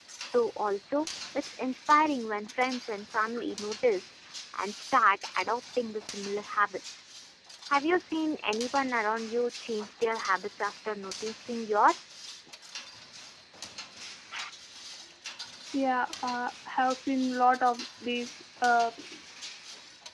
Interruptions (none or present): none